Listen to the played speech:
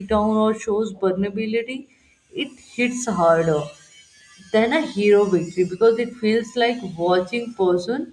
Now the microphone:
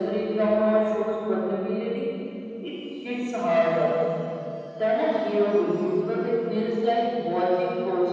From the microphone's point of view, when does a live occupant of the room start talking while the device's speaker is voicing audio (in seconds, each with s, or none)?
none